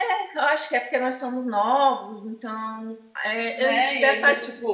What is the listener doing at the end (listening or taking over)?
taking over